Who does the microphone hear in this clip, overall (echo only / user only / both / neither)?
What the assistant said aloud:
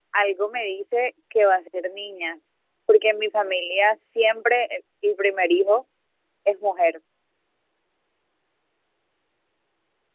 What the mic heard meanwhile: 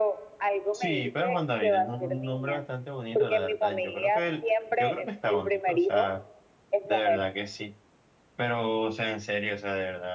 both